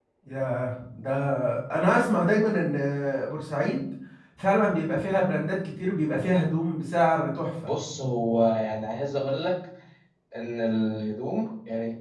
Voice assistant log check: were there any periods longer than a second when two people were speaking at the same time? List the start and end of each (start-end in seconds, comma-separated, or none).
none